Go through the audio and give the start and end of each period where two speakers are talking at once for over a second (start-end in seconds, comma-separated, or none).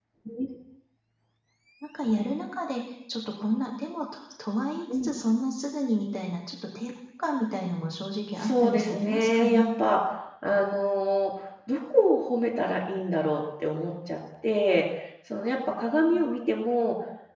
8.4-9.7